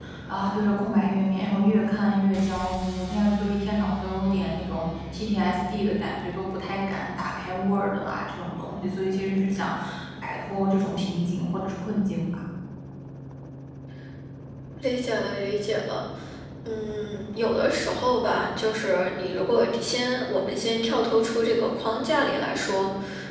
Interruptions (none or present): none